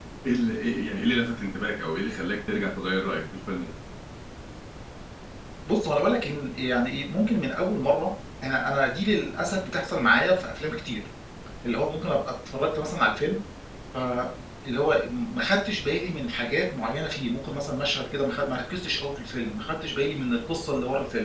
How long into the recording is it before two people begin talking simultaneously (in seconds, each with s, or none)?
none